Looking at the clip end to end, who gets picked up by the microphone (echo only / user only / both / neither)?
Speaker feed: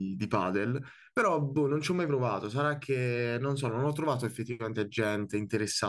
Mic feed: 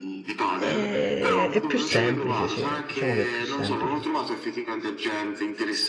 both